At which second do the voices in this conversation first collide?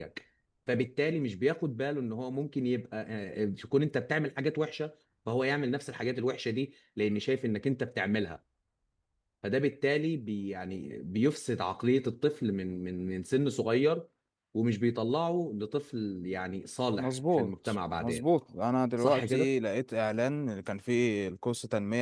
17 s

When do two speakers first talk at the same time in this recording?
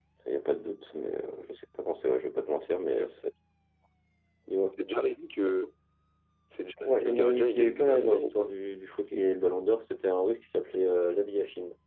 7 s

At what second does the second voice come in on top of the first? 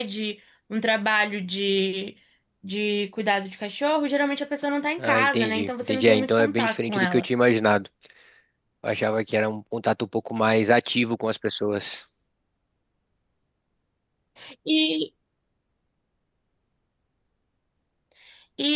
5 s

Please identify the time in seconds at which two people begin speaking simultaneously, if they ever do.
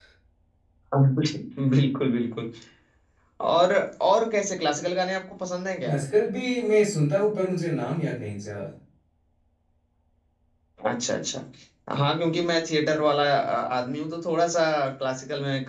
none

